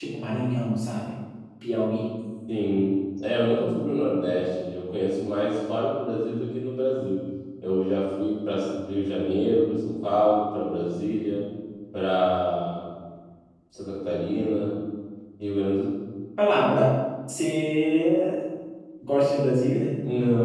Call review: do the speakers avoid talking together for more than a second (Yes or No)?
Yes